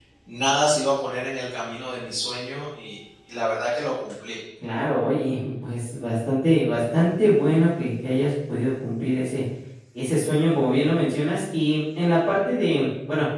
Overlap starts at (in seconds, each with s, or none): none